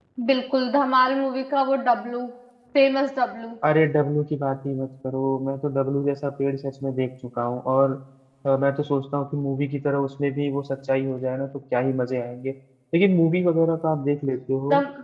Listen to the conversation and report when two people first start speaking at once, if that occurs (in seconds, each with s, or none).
none